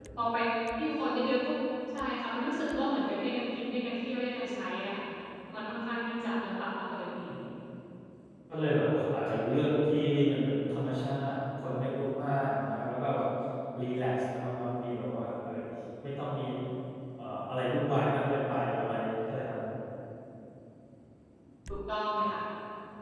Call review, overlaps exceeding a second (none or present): none